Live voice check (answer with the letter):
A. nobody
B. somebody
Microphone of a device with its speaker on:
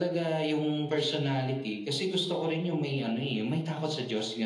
A